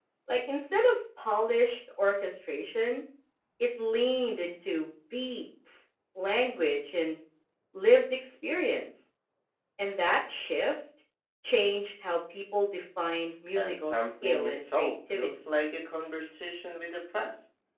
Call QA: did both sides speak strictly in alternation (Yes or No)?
No